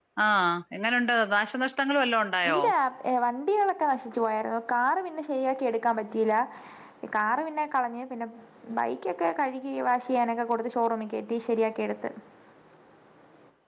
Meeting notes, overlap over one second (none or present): none